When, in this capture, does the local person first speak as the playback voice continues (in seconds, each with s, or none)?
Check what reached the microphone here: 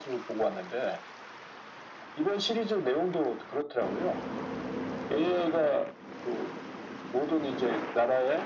none